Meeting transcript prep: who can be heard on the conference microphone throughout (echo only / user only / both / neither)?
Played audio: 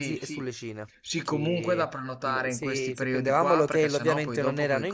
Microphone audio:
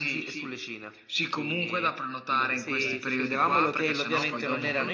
both